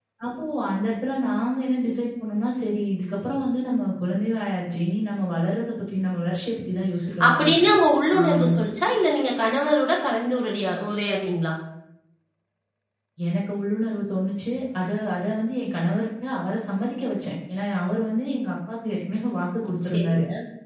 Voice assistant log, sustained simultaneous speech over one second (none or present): none